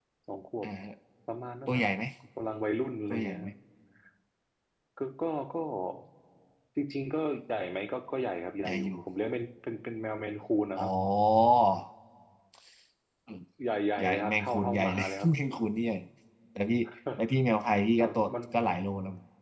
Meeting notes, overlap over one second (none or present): present